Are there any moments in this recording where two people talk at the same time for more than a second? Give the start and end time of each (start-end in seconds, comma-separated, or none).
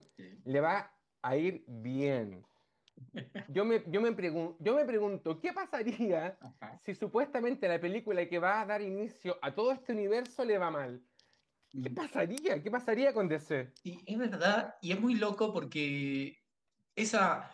none